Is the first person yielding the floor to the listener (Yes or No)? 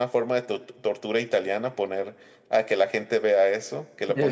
No